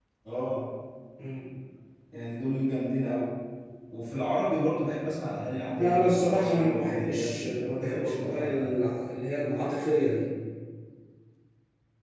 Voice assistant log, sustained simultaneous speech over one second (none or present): present